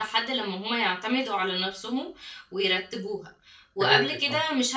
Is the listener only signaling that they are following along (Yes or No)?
Yes